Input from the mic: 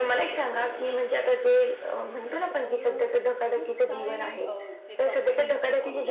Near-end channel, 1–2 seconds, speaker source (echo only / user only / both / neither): echo only